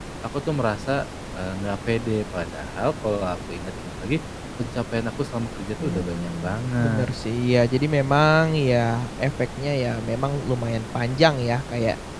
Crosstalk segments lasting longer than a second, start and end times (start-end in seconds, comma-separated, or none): 5.8-7.1